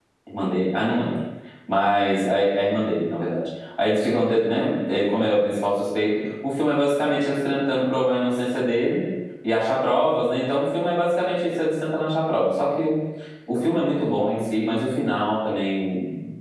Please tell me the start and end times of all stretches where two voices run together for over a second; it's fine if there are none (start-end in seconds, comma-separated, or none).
none